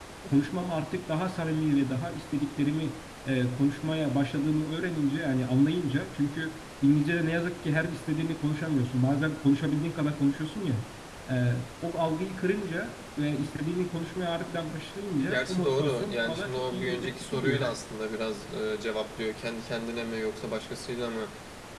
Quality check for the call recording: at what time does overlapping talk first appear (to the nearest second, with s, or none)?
15 s